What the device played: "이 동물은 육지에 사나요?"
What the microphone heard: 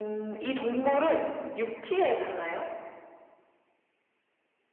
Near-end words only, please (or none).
none